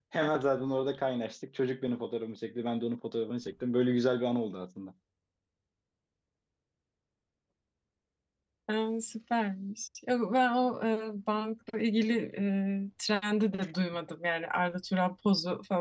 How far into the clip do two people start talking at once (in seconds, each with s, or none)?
none